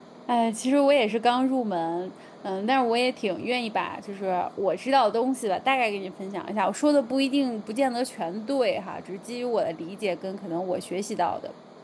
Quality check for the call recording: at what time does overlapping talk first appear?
none

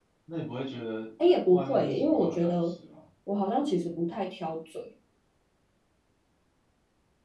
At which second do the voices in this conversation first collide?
1.5 s

